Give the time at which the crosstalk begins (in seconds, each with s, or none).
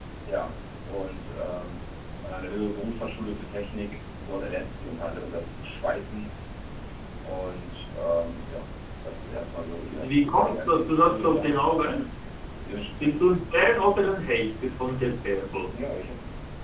10.0 s